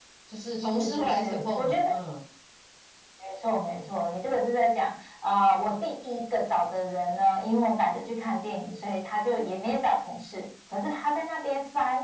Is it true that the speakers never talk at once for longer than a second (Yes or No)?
No